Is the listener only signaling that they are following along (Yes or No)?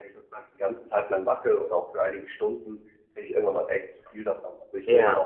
Yes